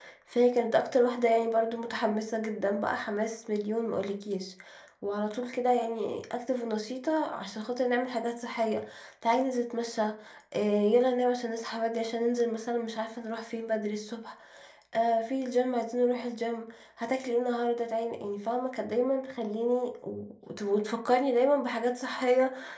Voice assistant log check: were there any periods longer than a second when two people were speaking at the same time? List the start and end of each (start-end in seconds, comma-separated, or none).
none